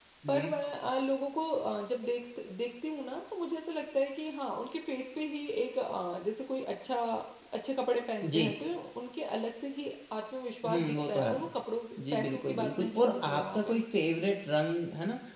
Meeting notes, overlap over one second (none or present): present